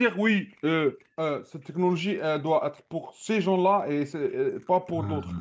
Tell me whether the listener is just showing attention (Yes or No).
Yes